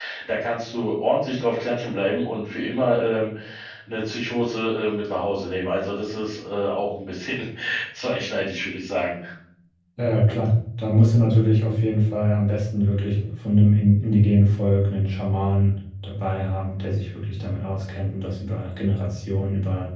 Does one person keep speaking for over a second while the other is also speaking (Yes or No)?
No